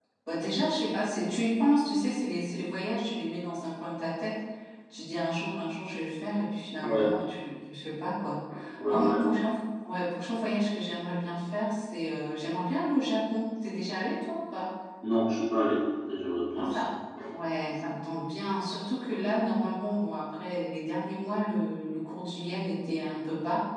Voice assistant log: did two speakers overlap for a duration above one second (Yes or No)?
No